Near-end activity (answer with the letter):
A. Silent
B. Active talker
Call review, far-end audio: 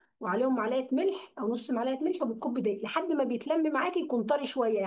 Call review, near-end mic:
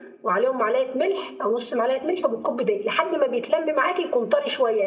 A